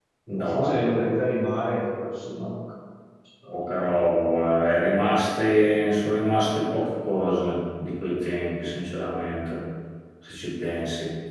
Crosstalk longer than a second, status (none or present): none